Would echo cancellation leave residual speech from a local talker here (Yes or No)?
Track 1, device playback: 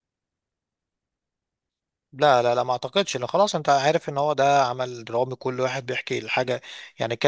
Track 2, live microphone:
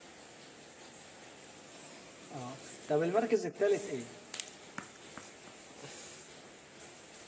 Yes